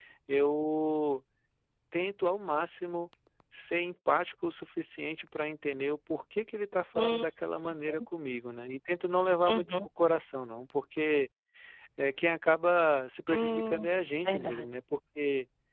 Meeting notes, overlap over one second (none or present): none